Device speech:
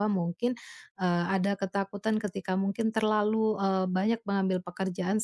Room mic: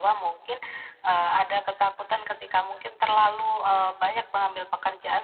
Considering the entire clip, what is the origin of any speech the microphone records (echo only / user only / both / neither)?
echo only